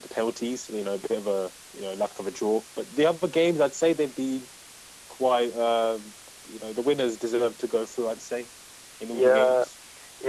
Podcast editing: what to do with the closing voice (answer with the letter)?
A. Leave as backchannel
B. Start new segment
B